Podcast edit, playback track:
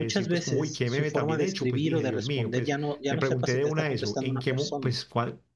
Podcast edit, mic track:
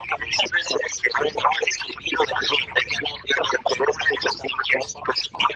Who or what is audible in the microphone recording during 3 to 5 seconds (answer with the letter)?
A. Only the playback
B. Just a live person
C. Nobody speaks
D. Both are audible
A